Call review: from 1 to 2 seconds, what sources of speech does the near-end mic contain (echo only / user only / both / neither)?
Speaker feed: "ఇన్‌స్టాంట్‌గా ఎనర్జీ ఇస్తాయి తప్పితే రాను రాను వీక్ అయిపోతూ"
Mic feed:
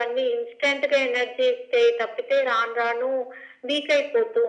echo only